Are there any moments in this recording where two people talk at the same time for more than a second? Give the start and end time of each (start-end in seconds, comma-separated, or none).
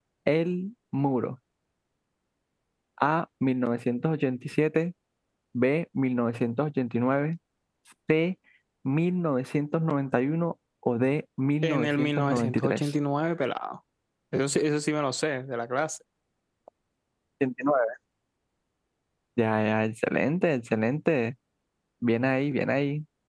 11.6-12.9